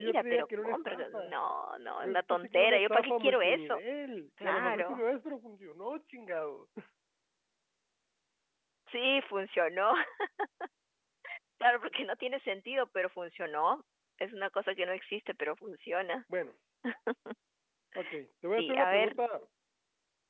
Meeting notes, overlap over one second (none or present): present